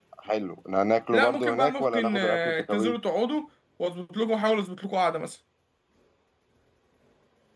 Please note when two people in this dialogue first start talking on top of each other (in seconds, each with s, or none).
1.1 s